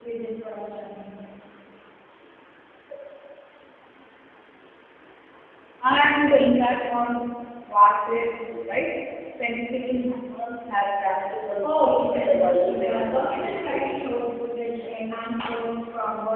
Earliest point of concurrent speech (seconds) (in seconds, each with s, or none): 11.6 s